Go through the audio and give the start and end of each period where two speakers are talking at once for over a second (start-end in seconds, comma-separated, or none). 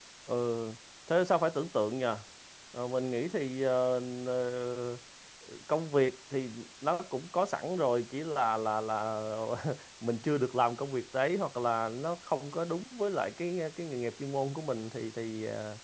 none